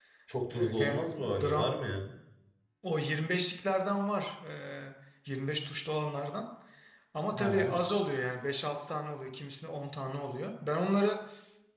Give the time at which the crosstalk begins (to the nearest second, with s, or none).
1 s